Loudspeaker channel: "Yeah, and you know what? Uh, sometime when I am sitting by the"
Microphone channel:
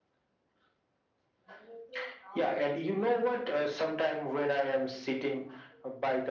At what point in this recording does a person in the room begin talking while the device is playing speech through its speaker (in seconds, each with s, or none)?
none